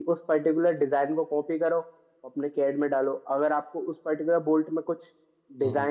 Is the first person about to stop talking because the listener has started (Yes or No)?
No